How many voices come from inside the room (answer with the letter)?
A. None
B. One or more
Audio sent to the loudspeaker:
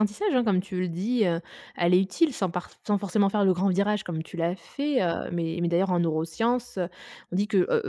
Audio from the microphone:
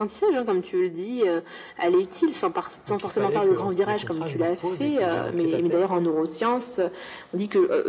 B